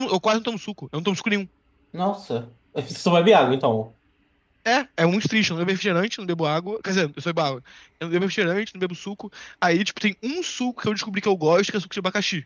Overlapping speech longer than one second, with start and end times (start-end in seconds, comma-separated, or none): none